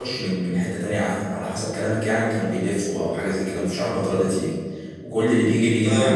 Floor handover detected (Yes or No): No